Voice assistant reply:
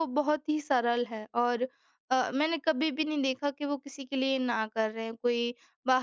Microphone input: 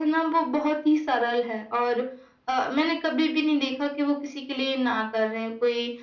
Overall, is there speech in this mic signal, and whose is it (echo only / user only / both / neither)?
echo only